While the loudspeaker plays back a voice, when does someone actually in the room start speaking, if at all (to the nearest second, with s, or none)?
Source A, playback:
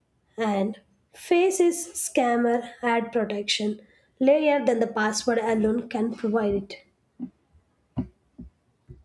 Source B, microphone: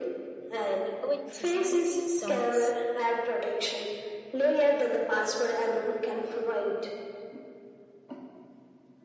1 s